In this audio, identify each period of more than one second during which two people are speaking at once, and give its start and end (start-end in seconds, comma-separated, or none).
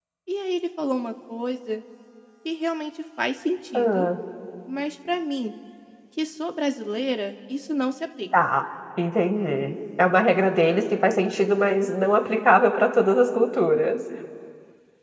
none